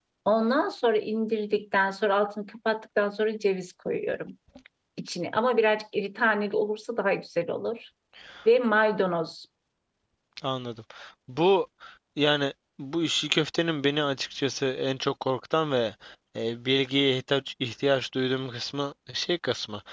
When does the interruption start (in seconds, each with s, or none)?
none